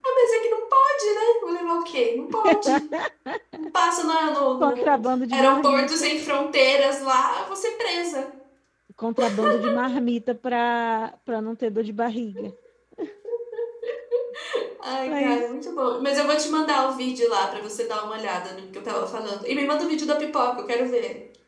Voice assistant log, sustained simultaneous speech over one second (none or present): present